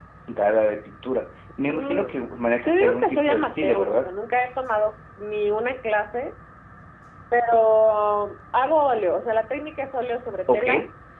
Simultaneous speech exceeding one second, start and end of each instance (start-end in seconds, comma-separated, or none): 2.7-4.2